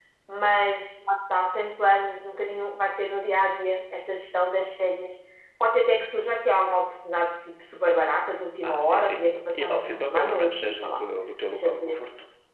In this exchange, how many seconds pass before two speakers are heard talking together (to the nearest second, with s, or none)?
9 s